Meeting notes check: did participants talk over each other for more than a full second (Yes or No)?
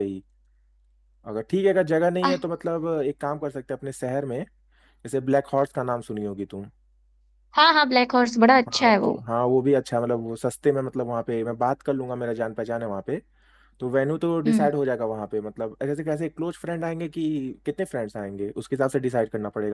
No